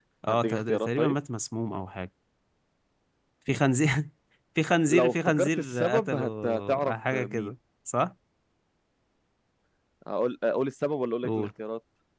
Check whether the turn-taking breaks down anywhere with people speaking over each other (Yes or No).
Yes